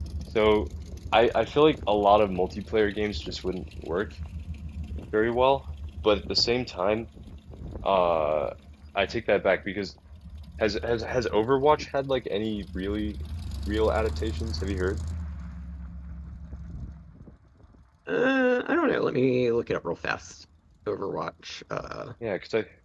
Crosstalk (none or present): none